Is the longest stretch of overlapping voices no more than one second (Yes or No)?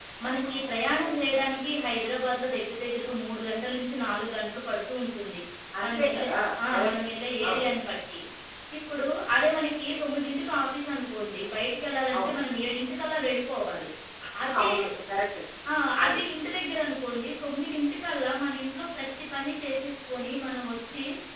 Yes